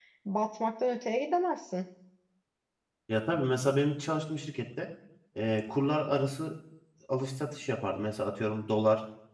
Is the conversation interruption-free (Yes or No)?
Yes